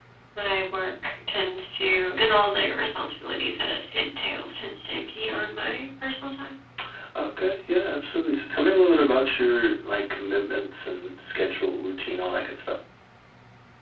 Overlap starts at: none

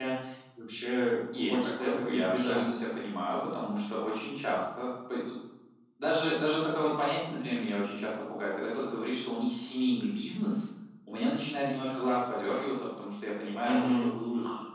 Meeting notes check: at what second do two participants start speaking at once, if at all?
1.3 s

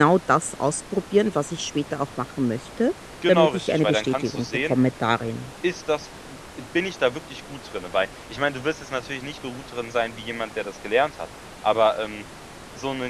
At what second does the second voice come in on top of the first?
3.2 s

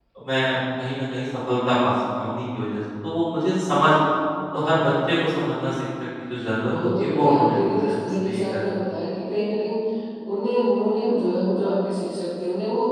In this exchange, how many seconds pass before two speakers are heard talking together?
6.6 s

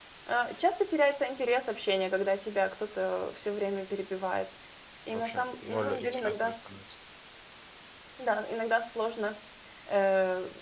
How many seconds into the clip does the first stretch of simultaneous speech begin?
5.1 s

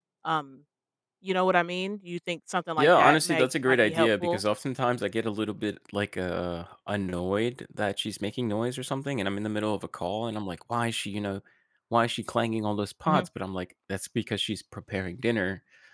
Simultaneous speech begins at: 2.8 s

